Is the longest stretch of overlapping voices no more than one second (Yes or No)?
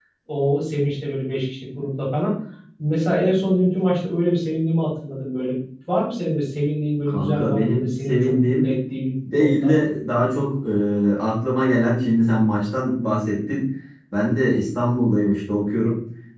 No